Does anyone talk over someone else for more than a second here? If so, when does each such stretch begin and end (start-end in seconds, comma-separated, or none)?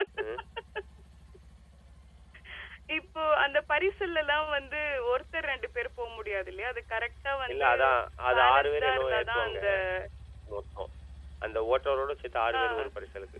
8.3-9.6